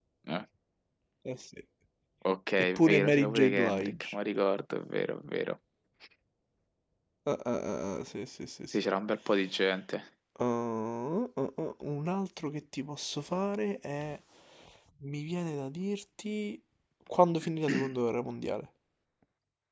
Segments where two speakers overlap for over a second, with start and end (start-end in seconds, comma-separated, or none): 2.6-4.2